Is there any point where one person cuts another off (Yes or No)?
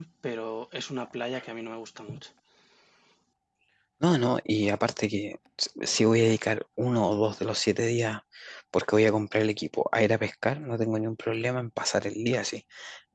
No